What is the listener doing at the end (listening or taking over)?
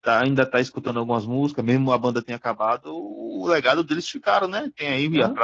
listening